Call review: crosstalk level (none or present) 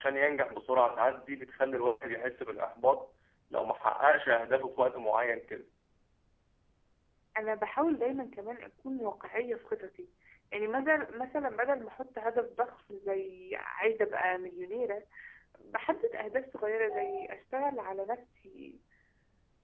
none